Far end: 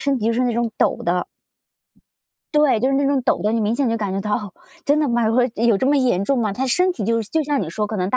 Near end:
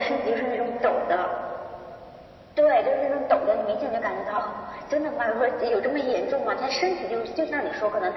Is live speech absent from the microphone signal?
Yes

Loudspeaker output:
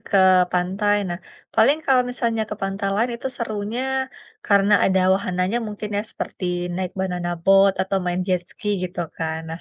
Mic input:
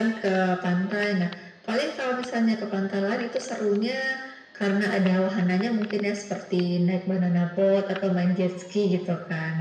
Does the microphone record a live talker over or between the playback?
No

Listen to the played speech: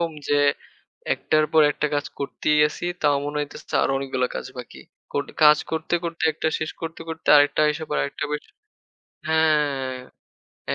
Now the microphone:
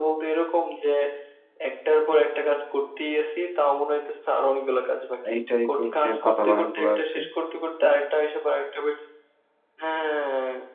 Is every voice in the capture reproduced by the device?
No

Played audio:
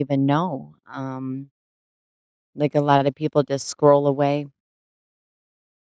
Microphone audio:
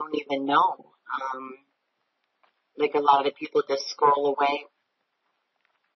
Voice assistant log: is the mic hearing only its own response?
Yes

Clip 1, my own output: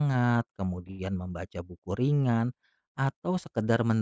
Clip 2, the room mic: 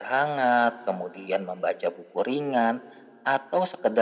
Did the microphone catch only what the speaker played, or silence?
Yes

